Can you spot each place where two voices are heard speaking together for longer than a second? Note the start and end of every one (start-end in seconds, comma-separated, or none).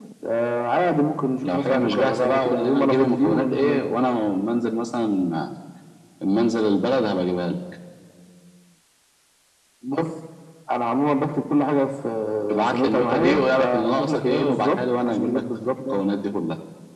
1.4-3.8, 12.7-16.0